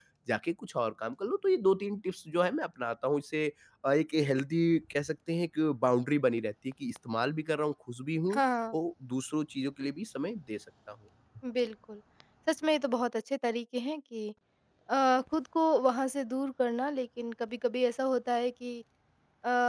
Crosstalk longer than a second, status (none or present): none